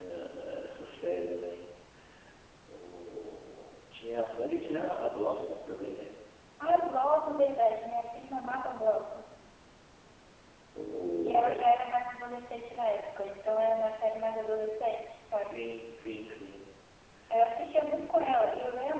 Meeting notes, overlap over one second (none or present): none